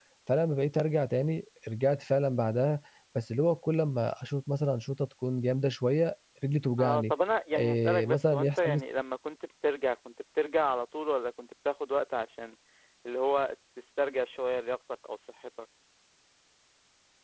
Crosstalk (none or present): present